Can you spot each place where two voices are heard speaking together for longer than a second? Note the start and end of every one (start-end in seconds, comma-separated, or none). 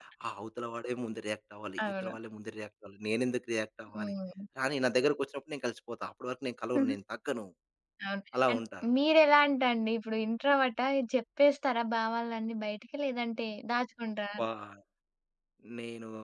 none